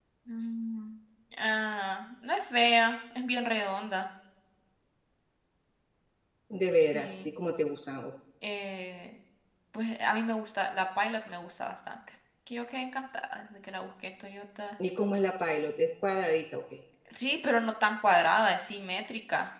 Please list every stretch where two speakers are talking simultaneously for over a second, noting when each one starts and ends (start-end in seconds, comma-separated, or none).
none